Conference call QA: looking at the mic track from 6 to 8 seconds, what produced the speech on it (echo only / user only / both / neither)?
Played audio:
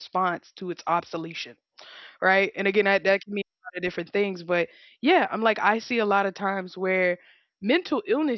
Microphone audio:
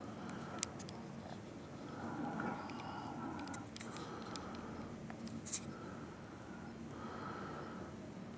neither